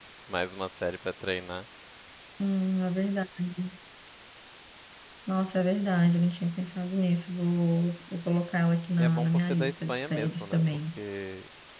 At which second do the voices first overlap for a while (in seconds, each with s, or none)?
9.0 s